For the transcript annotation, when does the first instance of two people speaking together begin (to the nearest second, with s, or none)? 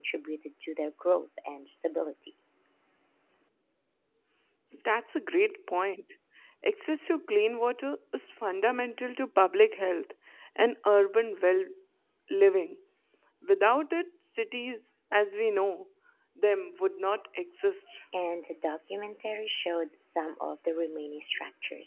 none